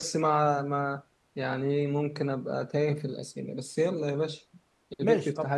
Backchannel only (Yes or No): No